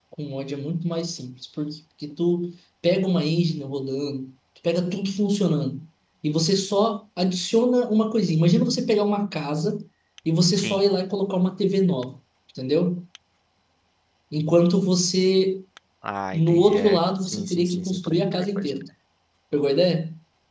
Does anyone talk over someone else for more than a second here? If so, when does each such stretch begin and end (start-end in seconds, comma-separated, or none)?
16.3-18.7